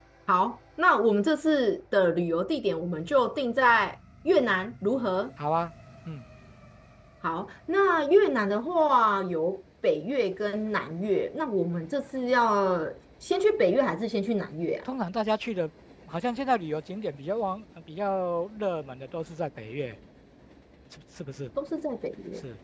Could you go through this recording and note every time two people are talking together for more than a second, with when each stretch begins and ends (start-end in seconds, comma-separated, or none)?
none